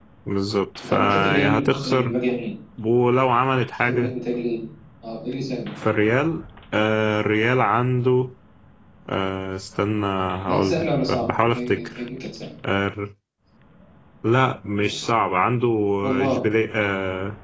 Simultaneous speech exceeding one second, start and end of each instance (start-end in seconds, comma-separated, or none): 0.9-2.1, 10.5-12.0